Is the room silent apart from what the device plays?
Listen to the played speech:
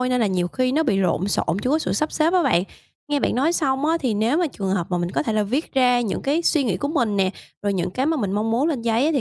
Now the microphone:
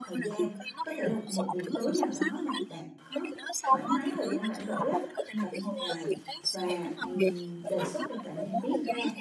No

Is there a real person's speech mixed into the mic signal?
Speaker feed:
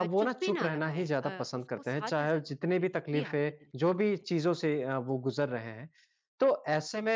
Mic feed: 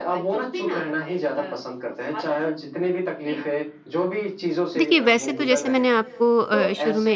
Yes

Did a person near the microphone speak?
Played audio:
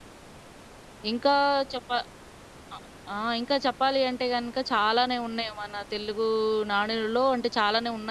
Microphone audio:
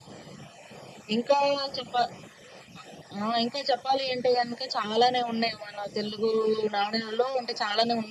No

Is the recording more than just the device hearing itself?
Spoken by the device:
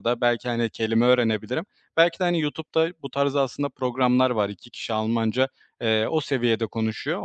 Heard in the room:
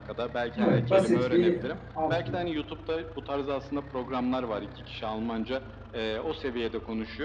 Yes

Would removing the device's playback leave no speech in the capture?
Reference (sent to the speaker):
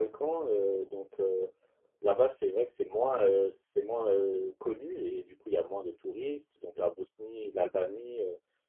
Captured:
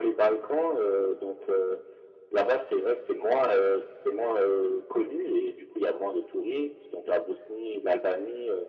Yes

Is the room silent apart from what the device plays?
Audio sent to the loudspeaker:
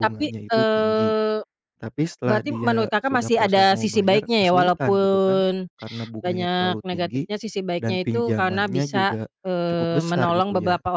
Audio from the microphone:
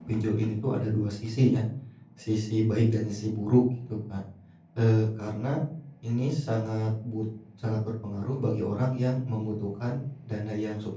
No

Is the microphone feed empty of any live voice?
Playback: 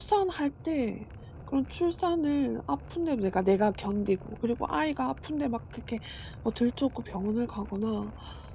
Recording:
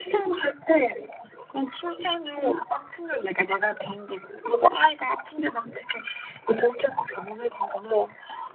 Yes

